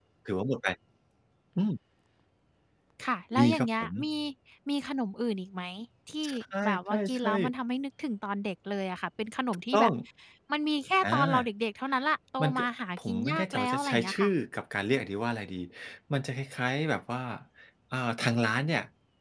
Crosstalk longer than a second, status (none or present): present